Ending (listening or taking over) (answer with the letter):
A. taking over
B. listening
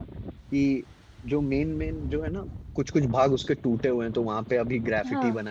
B